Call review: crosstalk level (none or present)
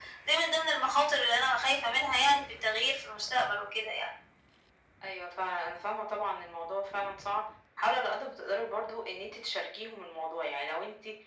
none